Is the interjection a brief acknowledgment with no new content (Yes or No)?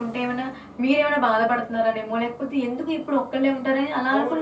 No